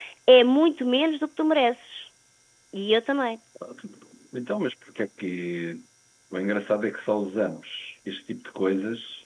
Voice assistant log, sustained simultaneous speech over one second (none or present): none